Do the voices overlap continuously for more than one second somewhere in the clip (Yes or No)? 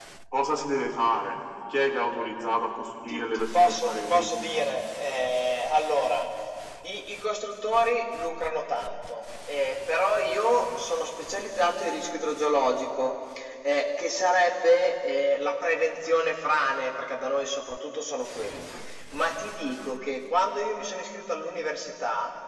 Yes